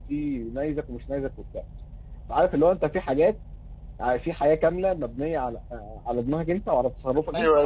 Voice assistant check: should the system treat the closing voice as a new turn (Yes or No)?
Yes